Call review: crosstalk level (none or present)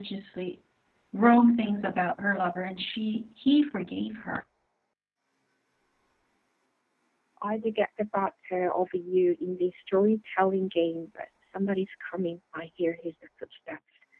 none